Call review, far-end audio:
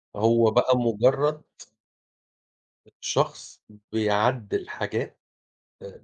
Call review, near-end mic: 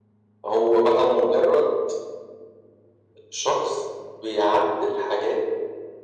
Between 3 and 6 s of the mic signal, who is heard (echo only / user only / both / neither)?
echo only